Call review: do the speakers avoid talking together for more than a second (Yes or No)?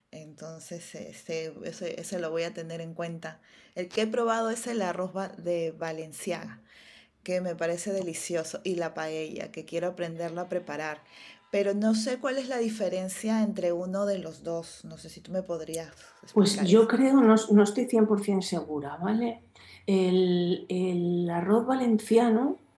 Yes